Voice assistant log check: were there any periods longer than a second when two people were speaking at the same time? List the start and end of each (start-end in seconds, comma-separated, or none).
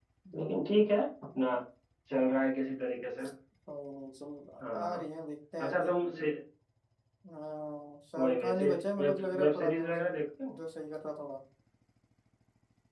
8.2-10.0